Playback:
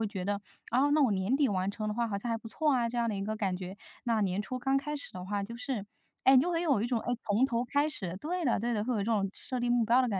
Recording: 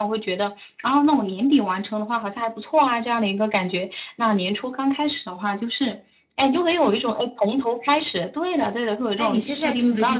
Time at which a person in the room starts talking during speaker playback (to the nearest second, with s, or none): 9 s